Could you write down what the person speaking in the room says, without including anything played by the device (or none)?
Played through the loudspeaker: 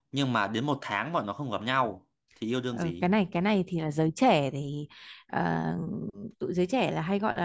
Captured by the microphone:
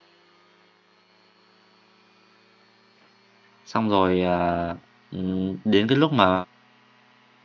xong rồi ờ, ừm, đến cái lúc mà